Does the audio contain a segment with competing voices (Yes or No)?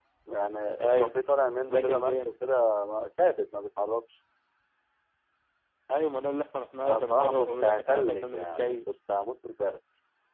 Yes